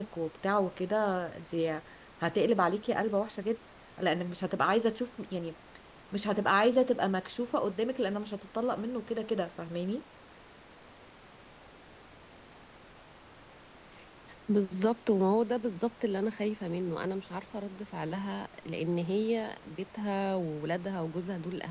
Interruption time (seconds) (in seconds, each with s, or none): none